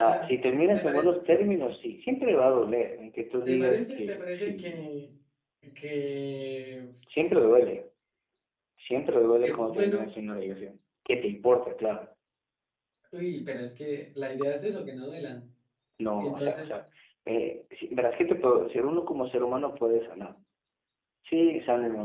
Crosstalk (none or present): present